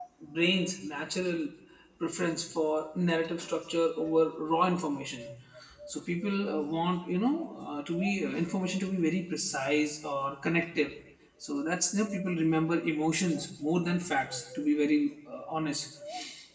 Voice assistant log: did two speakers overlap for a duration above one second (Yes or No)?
No